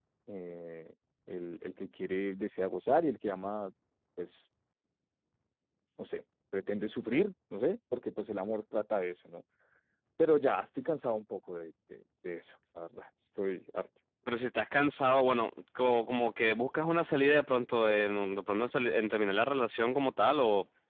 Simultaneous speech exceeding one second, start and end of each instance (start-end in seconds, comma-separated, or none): none